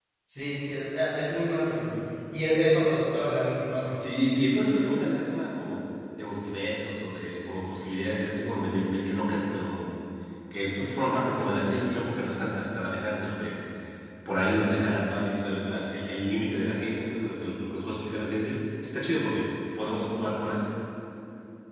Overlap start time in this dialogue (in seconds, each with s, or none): none